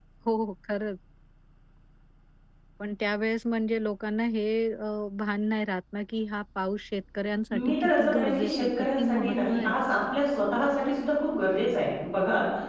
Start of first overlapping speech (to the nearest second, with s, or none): 7 s